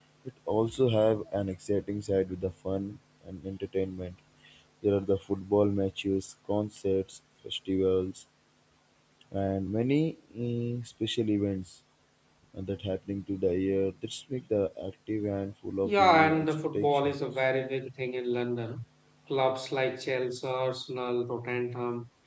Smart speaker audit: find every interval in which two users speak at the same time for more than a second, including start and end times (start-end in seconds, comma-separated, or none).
15.8-17.2